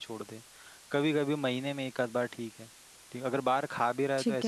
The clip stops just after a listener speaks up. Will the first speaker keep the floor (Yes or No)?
Yes